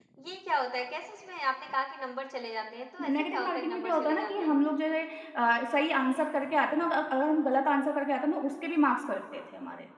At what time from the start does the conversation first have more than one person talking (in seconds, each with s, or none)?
3.0 s